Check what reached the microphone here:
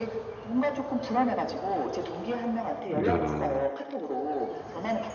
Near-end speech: present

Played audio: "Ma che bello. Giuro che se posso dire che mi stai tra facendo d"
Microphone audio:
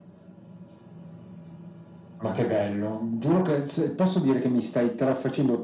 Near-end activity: none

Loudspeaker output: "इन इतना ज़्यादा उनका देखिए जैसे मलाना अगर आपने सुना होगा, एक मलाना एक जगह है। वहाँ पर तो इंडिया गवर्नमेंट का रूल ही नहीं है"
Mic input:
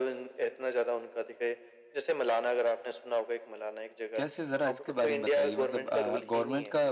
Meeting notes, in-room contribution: present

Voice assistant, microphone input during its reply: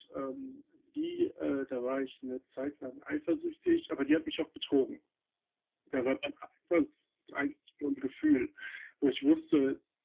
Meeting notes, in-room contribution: none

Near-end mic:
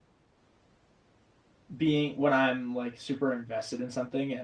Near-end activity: present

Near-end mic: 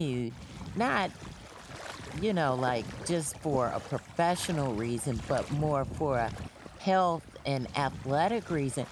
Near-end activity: present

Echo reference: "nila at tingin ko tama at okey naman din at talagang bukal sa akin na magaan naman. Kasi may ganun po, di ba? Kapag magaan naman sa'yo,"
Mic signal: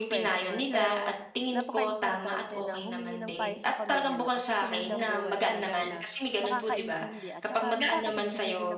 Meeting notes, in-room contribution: present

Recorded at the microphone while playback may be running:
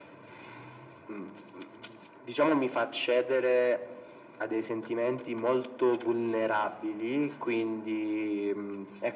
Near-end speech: none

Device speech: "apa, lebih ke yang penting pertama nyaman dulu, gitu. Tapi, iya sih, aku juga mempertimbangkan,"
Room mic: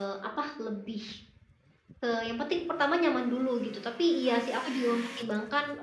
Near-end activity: none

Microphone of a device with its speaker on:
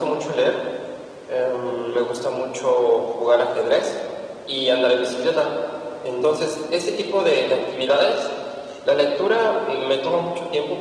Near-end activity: none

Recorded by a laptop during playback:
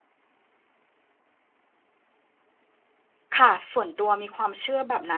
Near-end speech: present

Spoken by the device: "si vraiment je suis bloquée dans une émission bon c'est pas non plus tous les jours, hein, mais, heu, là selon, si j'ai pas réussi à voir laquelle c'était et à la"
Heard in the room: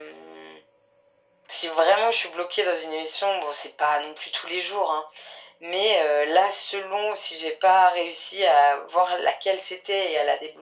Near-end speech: none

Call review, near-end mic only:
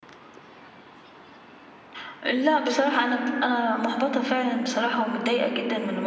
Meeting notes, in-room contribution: none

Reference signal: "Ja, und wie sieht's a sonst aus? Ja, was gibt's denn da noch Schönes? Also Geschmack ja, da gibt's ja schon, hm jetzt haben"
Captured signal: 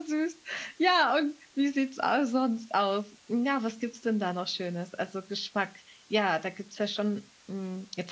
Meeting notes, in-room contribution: none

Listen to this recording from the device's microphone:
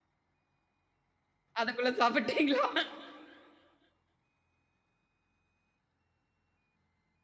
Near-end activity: present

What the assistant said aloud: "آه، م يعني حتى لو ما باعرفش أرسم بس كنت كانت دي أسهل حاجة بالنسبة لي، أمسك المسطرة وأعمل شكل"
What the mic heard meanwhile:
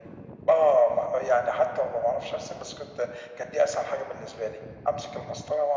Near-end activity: none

